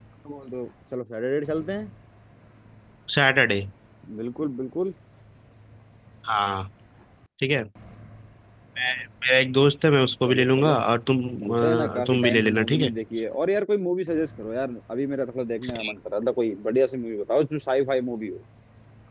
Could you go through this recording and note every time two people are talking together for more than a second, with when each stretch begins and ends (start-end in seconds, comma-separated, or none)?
11.6-12.9